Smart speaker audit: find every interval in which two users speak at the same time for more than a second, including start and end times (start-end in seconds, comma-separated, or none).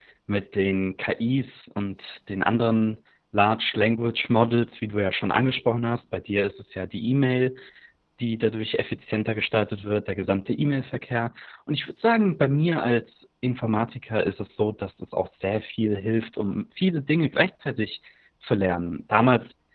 none